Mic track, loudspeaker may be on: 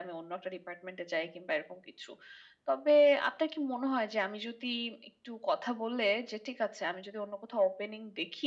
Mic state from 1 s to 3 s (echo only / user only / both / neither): echo only